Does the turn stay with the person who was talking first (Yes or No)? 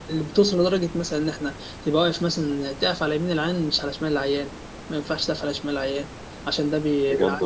Yes